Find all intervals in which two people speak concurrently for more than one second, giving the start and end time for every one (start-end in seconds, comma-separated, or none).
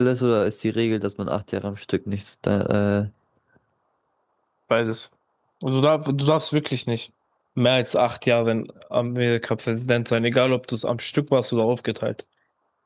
none